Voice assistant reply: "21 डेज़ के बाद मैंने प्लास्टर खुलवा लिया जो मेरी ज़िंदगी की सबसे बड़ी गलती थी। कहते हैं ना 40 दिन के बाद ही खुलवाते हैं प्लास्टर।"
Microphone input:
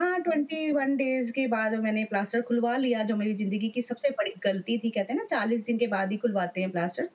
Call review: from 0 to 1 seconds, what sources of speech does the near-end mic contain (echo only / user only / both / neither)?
echo only